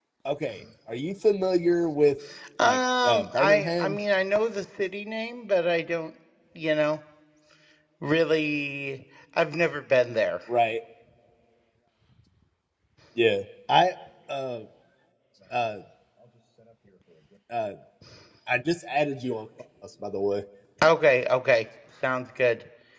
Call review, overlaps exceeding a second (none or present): present